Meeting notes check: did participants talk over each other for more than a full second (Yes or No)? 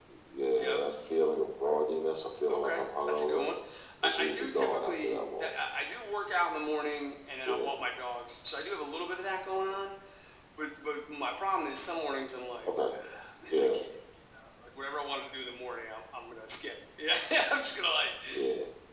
Yes